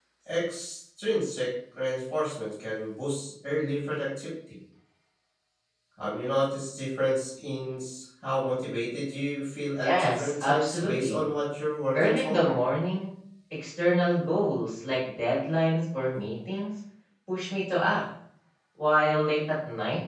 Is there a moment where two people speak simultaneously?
Yes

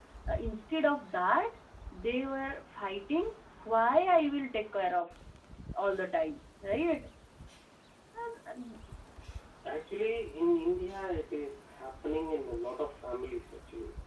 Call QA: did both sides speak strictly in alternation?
Yes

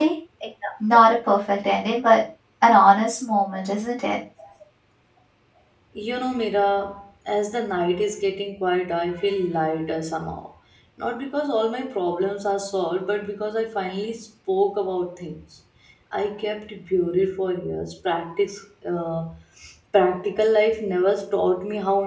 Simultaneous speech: No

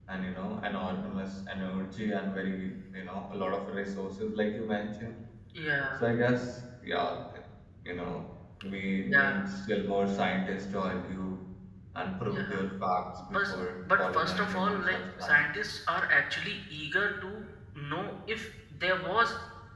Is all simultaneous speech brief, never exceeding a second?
No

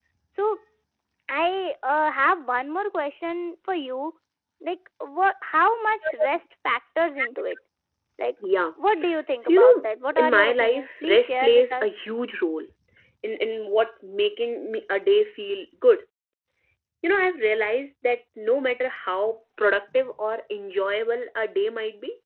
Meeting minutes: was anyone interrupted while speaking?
Yes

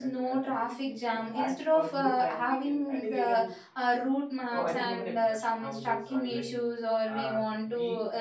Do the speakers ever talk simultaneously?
Yes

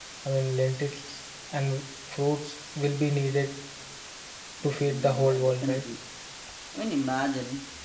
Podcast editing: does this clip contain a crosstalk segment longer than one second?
Yes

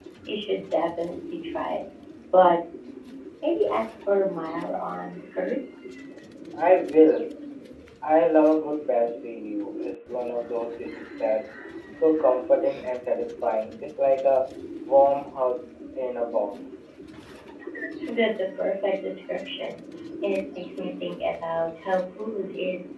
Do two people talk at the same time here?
No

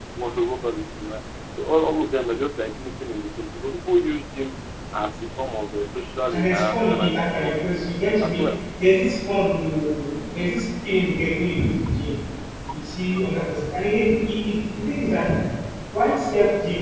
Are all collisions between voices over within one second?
No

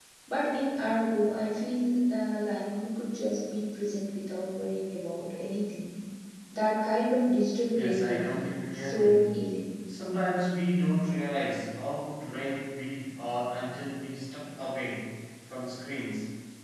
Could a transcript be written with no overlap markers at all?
No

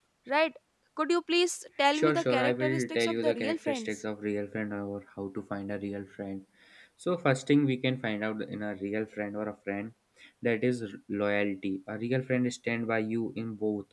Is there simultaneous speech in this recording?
Yes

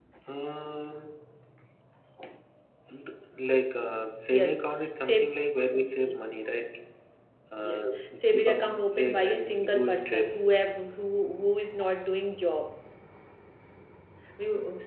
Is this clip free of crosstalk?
No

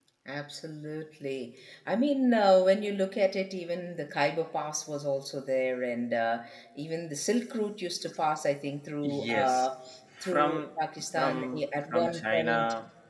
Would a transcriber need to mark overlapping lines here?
Yes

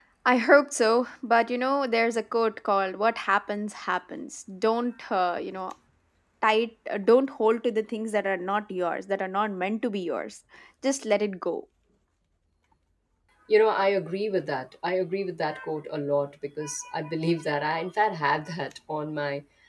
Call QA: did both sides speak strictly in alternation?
Yes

